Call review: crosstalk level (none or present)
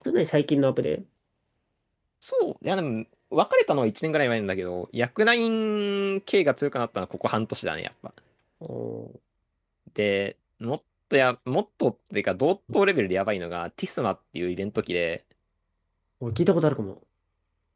none